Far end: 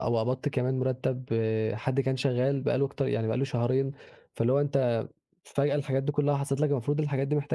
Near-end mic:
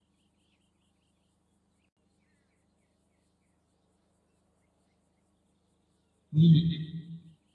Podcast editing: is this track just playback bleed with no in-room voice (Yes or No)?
No